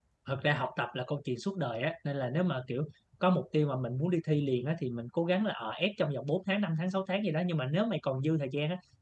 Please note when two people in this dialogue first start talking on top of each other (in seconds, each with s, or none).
none